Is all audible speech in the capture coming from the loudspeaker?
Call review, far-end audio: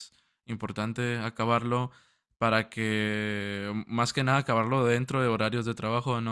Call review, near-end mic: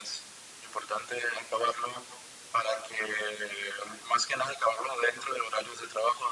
Yes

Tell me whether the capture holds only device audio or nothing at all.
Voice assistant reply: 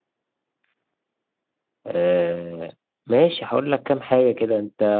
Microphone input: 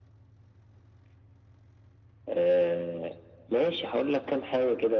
Yes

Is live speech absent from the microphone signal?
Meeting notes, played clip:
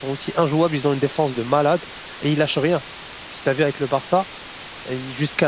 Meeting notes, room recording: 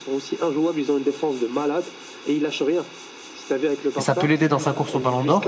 No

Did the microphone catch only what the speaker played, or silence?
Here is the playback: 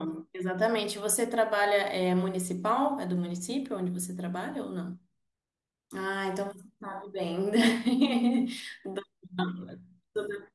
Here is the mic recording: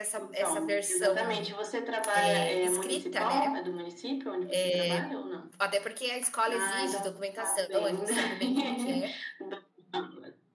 No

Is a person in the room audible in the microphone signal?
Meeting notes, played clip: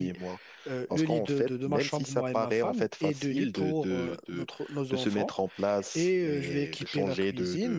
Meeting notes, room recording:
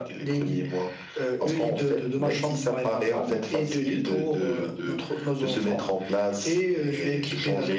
No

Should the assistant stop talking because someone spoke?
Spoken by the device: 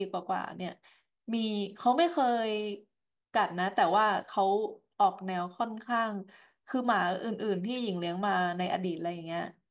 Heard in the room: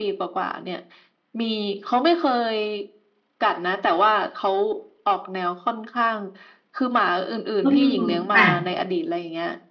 Yes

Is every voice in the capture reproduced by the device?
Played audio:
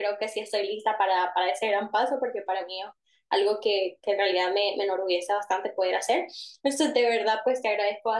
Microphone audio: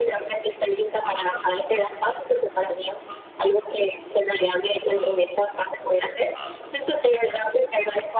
Yes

